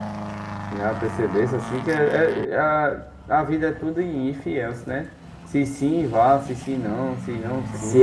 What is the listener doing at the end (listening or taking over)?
taking over